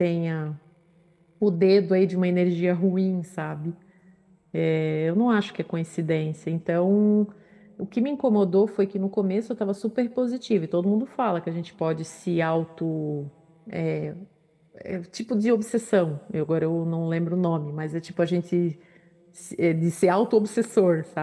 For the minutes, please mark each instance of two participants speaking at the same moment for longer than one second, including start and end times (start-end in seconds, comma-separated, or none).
none